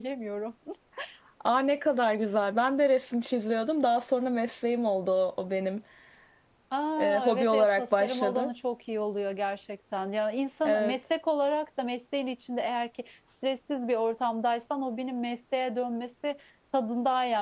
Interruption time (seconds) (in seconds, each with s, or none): 7.0 s